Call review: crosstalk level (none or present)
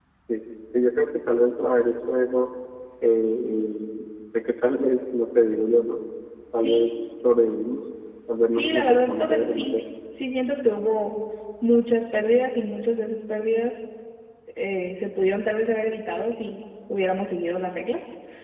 present